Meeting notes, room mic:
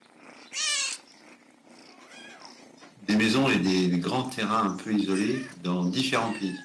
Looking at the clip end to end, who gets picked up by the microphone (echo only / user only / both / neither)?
user only